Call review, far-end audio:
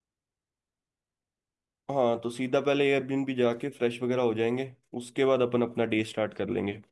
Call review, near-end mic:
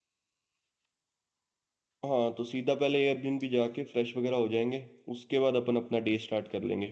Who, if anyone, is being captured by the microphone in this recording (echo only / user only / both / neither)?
echo only